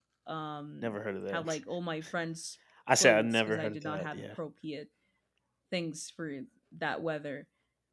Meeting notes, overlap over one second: present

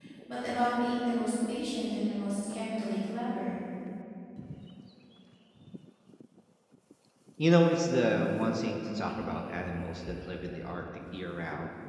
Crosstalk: none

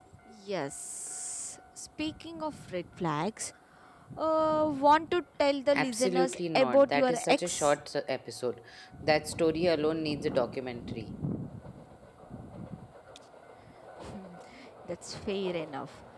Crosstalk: present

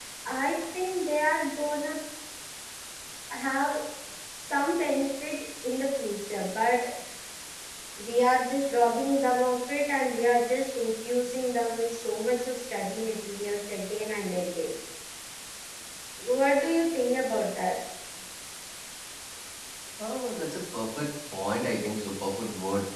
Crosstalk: none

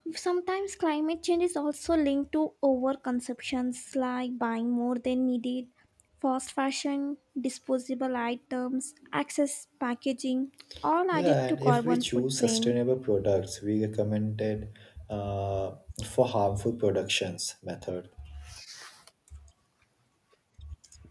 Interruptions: present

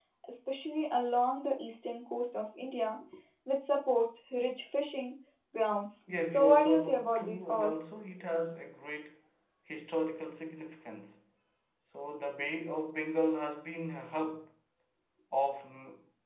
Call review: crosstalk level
present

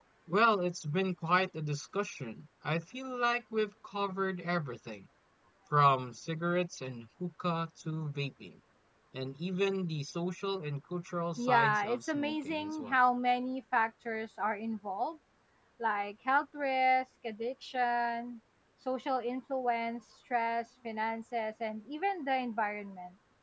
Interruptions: present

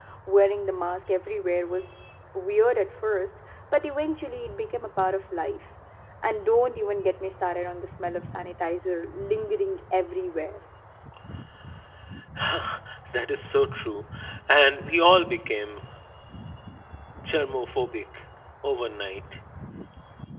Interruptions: none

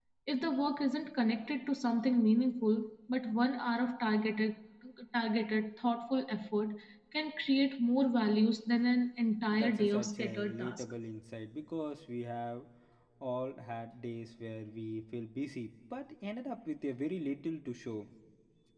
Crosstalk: present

